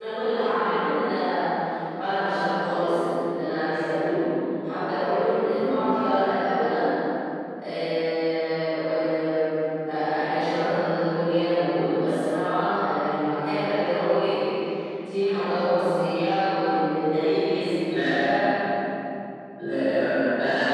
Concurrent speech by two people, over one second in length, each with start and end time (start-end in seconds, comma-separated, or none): none